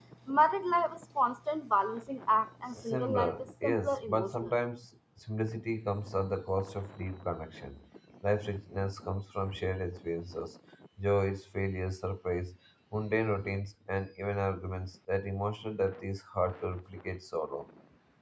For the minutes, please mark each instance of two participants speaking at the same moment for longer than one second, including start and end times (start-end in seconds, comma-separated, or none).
2.9-4.5